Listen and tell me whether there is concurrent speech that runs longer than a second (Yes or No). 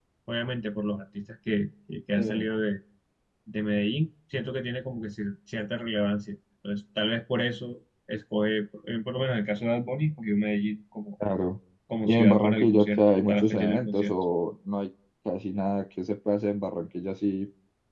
Yes